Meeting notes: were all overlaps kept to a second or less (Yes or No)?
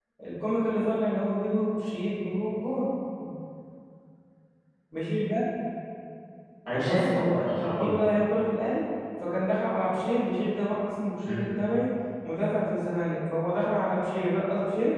No